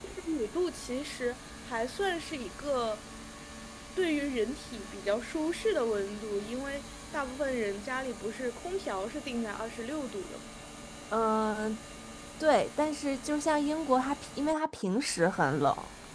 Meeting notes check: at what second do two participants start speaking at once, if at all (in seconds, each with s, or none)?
none